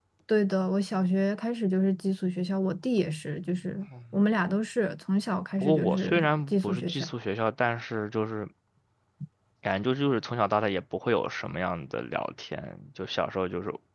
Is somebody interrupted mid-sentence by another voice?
Yes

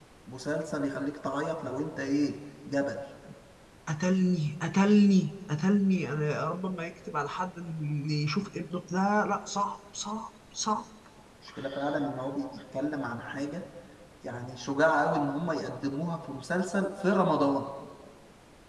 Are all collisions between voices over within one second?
Yes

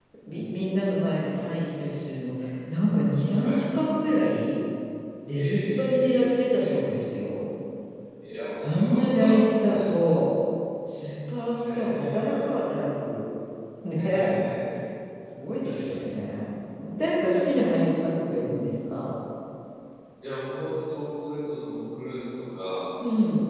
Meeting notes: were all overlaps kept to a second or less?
No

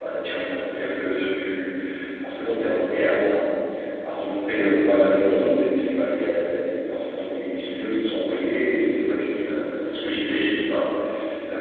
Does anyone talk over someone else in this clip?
No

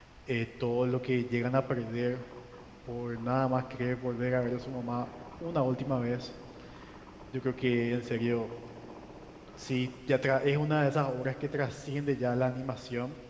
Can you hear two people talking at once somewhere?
No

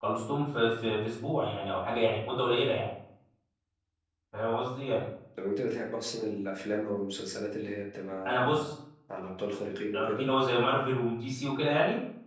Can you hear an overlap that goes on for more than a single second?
No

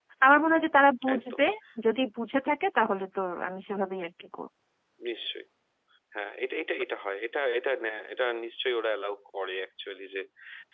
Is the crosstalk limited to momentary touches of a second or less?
Yes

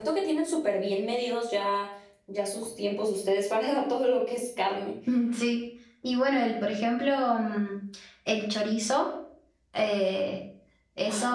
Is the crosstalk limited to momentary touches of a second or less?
Yes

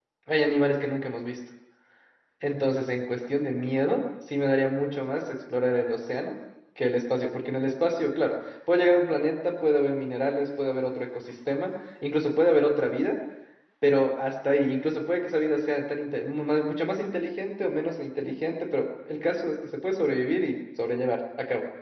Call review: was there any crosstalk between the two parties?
No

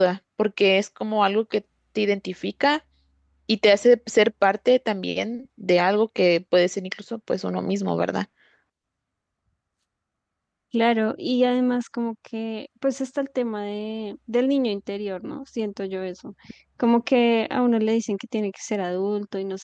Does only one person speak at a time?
Yes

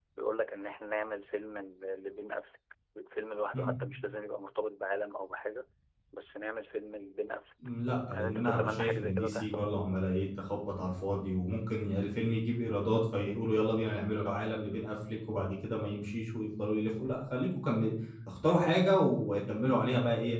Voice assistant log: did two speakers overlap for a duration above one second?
Yes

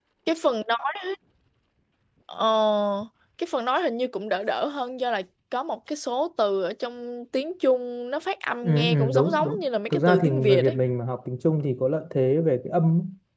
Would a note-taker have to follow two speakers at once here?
Yes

